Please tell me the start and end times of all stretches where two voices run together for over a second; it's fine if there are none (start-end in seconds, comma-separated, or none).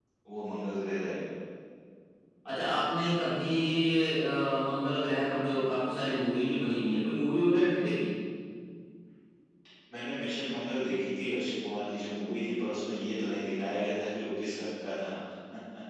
none